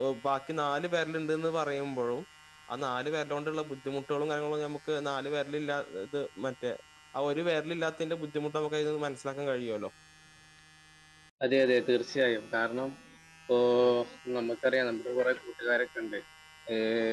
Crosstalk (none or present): none